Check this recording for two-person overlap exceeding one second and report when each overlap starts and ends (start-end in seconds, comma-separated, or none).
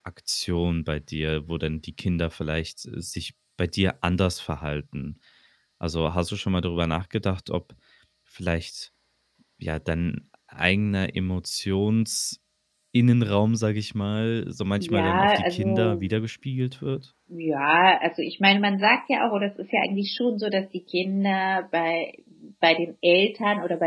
14.8-16.0